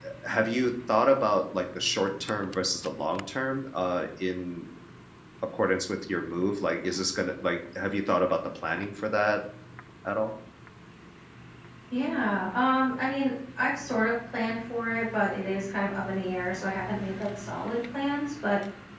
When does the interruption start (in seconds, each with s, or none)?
none